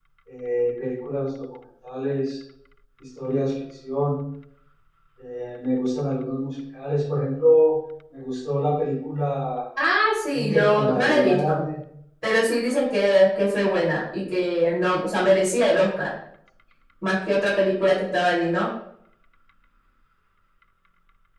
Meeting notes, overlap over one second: present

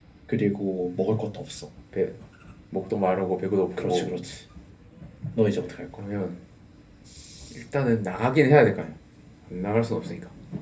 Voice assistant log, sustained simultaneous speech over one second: none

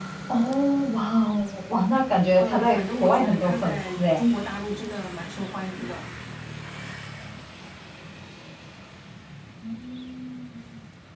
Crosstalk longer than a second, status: present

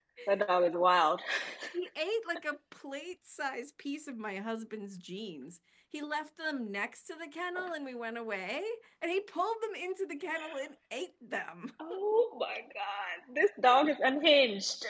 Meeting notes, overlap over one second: none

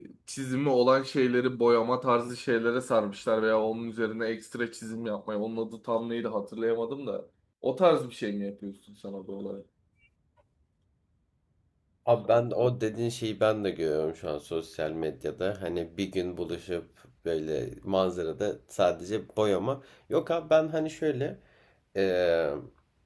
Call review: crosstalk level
none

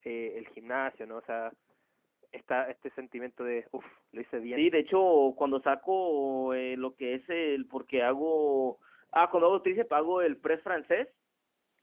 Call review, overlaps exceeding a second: none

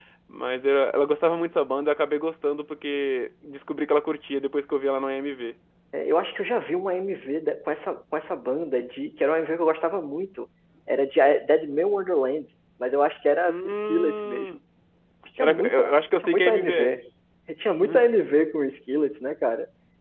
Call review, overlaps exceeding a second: present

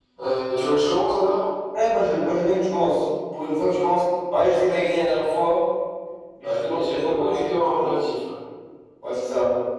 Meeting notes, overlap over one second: present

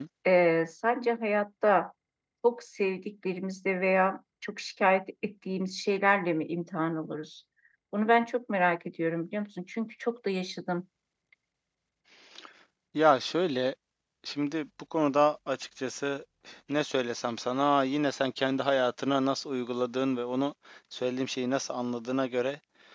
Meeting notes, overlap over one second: none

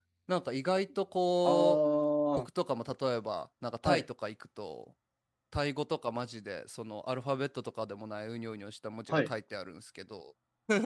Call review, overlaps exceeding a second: none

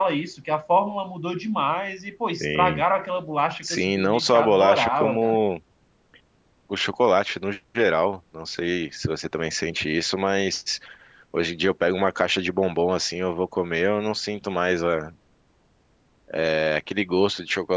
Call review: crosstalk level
present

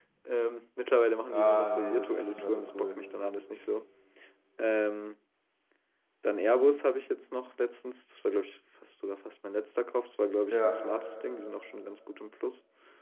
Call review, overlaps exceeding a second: present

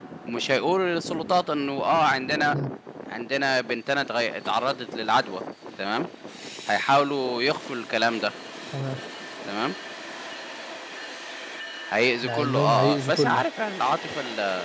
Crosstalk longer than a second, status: present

